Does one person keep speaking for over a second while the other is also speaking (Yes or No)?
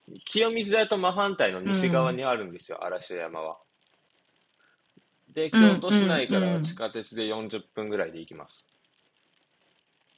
Yes